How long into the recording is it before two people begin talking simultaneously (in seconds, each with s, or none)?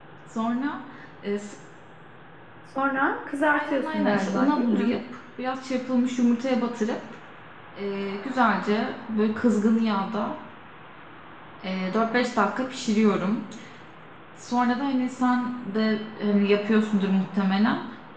3.5 s